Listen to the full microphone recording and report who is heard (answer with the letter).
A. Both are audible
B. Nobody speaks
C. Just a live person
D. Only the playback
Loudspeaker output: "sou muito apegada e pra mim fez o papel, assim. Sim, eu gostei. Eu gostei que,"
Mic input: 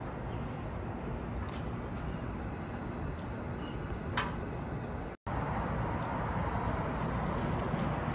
B